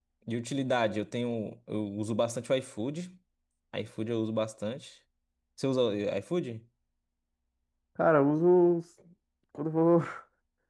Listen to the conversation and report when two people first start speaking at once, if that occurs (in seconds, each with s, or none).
none